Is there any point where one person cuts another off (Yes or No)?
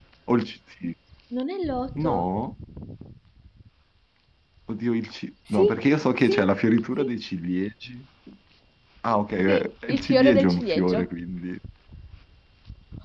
Yes